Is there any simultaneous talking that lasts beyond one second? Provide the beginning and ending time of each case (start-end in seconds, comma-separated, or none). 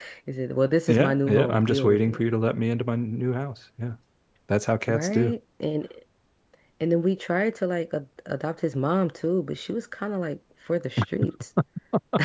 0.9-2.2